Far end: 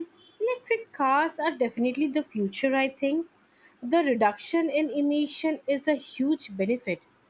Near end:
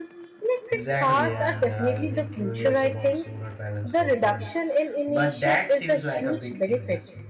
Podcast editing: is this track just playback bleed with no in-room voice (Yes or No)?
No